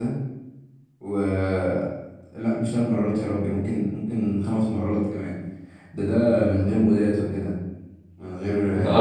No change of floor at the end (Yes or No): No